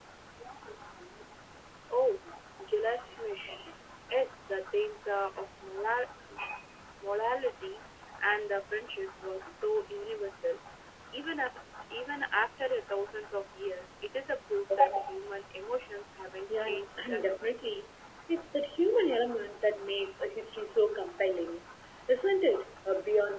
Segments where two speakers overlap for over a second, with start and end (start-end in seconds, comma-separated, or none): 16.5-17.8